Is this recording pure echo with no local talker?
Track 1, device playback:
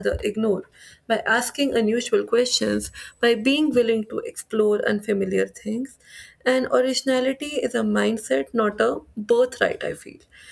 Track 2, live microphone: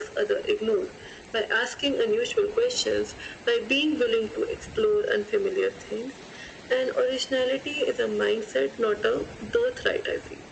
Yes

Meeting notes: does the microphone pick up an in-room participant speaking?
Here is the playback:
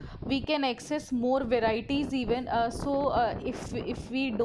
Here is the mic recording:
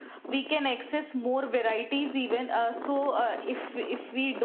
No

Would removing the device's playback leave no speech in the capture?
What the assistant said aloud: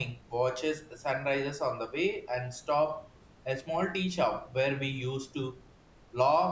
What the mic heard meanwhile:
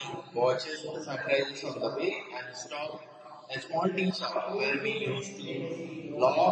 No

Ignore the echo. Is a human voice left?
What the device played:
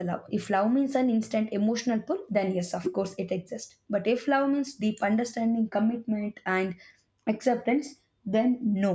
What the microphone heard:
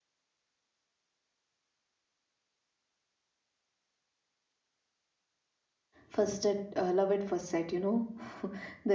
Yes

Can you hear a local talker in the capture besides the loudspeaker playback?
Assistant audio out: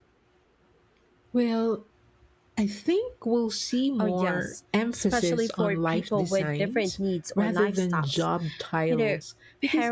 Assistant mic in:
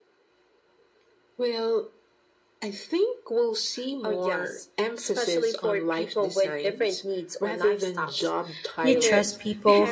Yes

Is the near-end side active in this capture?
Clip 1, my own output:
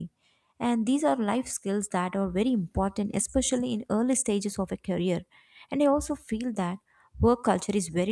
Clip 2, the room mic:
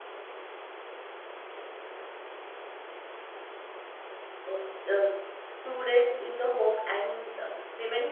Yes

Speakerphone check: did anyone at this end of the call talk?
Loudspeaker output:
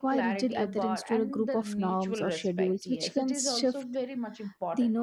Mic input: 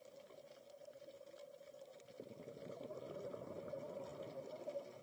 No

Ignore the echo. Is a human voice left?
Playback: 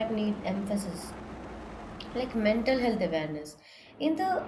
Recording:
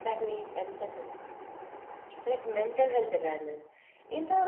No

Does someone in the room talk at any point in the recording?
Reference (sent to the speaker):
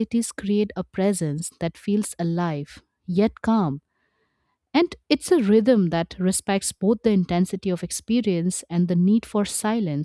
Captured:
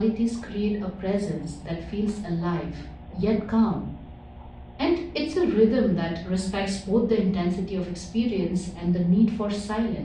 No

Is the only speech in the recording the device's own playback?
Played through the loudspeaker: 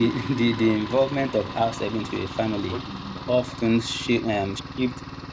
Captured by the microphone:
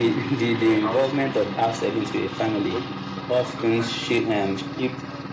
No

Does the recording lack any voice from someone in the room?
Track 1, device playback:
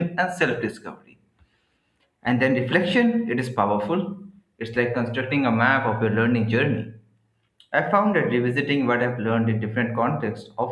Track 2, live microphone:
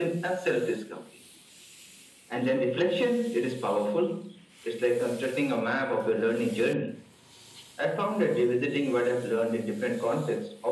Yes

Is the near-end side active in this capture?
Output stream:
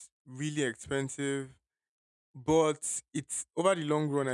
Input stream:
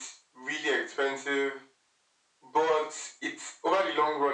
No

